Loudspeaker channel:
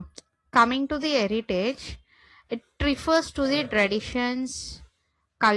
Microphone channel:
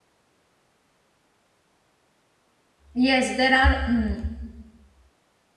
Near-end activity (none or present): present